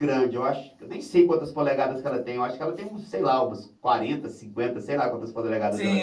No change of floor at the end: No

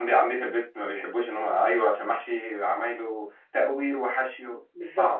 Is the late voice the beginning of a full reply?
Yes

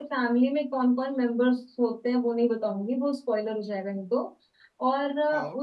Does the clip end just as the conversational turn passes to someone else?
No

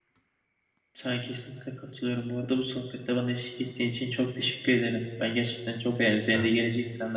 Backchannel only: Yes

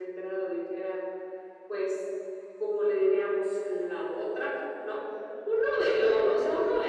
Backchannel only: Yes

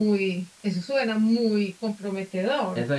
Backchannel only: No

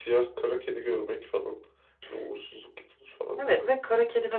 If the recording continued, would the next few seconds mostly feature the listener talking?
Yes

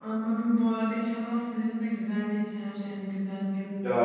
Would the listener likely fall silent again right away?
No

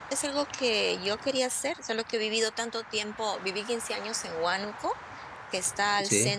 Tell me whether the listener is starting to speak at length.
No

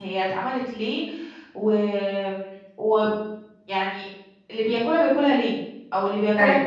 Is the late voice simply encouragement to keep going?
Yes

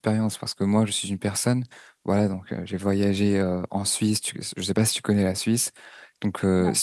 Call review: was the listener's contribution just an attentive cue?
Yes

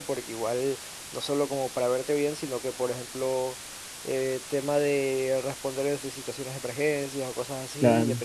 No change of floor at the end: Yes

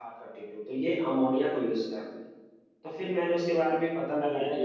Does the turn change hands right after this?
No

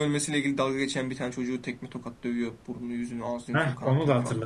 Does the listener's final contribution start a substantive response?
Yes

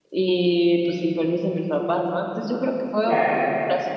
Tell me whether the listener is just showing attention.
Yes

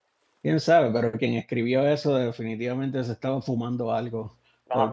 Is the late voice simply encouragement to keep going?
No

